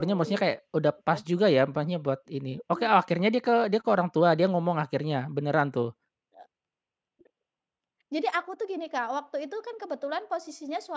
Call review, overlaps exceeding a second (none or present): none